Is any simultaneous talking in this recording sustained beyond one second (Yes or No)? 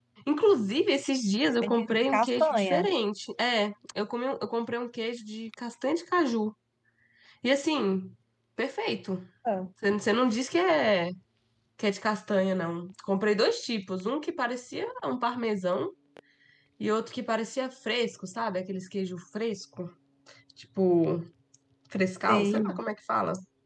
Yes